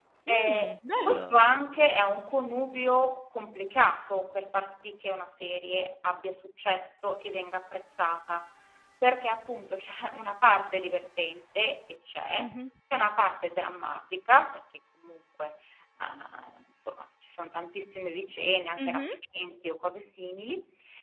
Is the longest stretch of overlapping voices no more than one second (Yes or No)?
Yes